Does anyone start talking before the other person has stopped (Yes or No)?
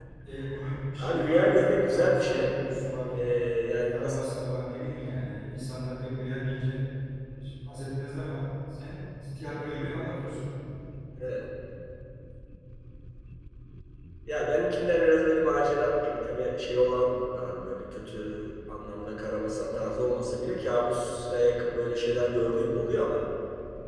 Yes